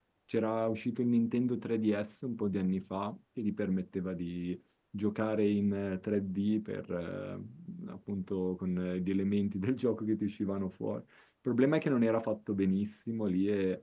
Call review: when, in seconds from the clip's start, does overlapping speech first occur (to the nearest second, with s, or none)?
none